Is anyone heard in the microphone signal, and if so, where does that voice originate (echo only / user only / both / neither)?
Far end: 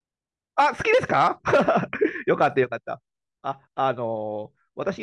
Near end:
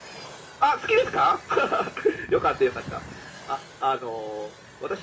echo only